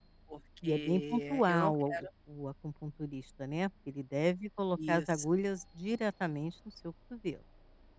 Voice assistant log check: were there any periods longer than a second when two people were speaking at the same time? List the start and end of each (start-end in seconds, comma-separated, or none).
0.6-2.1